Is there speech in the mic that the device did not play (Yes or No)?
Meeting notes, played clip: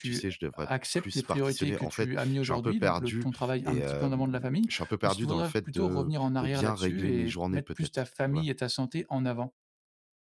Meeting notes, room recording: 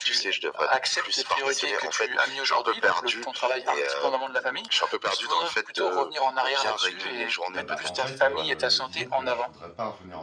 Yes